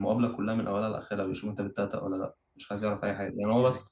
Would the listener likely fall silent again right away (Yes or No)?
Yes